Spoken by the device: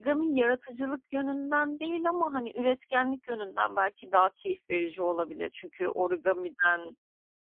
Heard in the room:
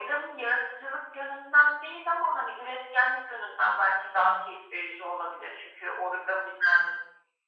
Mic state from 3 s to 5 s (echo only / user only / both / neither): echo only